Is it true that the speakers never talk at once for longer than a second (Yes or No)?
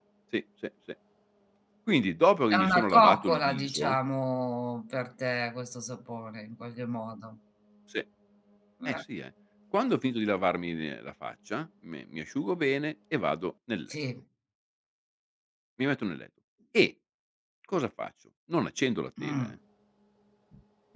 No